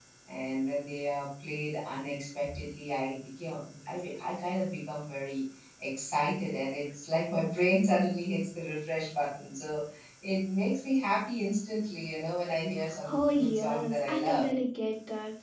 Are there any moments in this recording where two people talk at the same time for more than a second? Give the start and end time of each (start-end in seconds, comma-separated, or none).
13.1-14.5